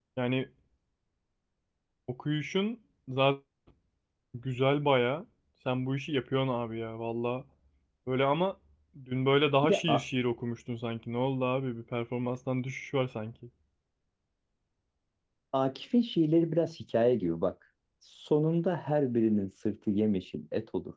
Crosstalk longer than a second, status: none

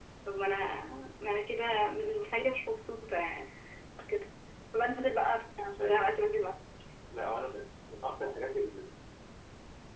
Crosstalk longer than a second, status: none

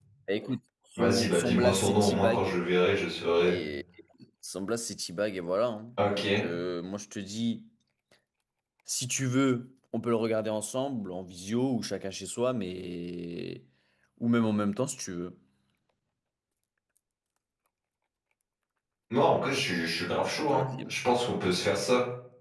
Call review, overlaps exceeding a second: present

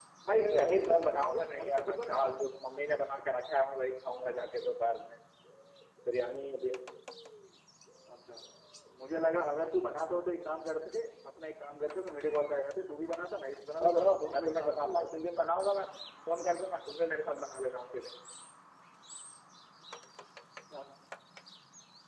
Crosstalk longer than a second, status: present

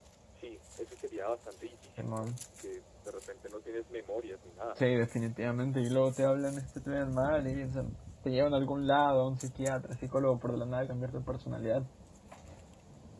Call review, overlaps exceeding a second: none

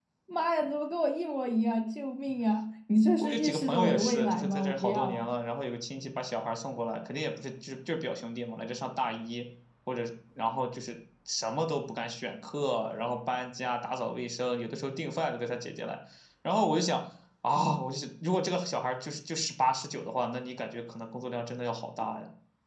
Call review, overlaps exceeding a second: present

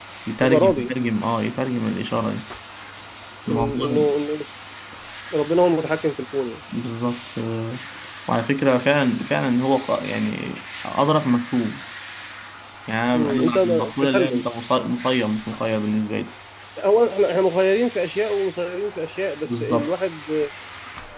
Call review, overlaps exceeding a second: present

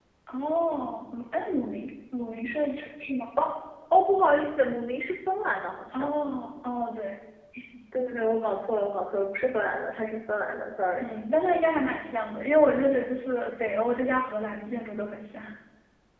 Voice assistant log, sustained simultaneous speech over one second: none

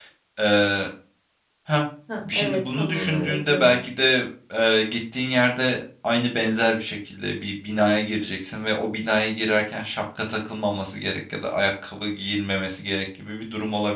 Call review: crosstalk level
present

